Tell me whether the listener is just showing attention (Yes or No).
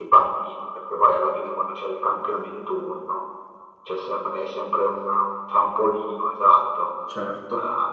Yes